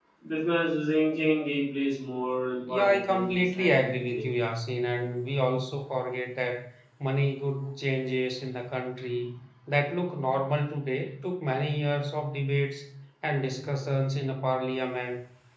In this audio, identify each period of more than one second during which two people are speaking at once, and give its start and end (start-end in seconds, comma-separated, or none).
2.7-4.2